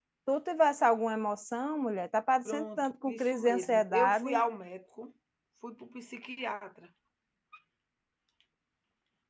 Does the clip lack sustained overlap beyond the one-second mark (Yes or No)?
No